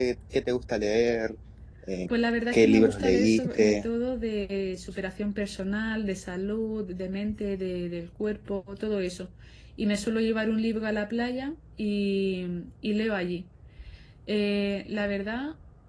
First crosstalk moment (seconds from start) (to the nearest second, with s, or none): 3 s